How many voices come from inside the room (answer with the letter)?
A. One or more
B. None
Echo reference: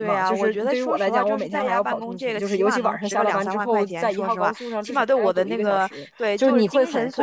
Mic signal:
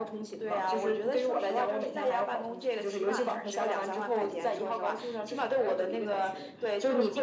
B